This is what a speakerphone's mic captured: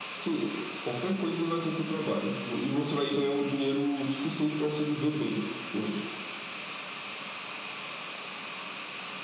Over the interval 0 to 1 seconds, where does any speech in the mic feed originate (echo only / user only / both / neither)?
echo only